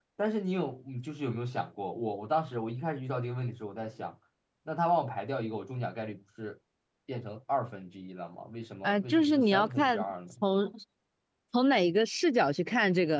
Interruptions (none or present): present